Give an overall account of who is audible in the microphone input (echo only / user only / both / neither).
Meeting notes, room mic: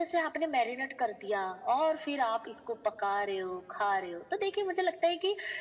echo only